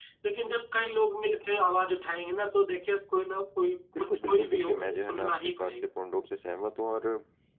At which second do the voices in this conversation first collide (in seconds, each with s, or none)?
4.0 s